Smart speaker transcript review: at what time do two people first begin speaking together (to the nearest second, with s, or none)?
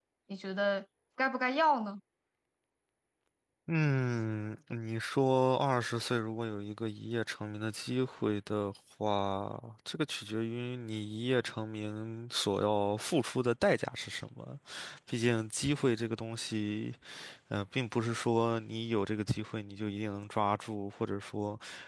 none